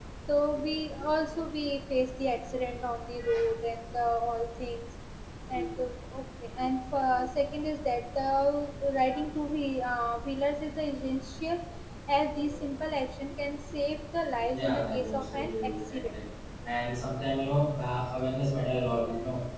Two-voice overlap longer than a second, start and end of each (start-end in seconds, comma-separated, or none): 14.6-16.2